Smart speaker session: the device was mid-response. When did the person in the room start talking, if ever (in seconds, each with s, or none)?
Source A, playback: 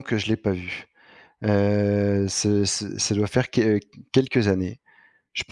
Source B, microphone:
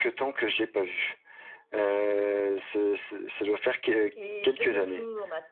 4.2 s